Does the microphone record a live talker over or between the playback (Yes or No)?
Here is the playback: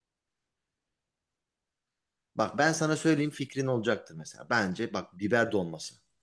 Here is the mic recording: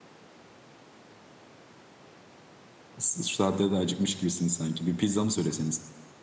Yes